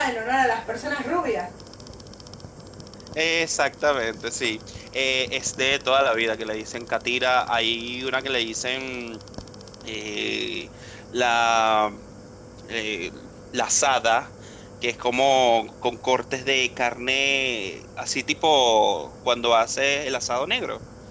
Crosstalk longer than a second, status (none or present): none